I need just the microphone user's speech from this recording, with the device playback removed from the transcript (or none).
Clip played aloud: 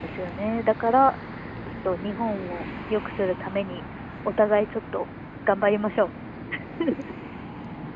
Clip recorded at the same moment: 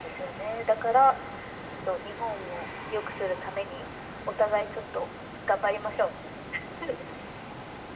none